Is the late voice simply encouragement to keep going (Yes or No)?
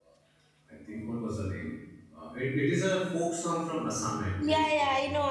No